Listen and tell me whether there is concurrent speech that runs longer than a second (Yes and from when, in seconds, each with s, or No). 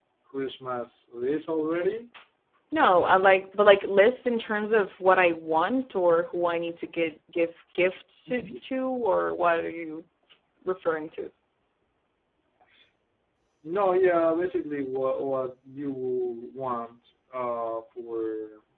No